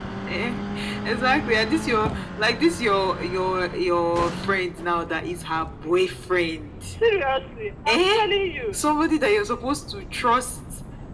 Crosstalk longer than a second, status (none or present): none